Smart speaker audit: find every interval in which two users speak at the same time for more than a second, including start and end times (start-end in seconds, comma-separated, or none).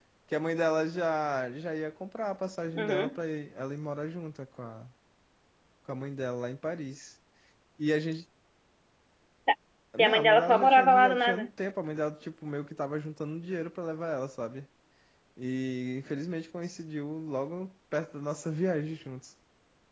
10.0-11.5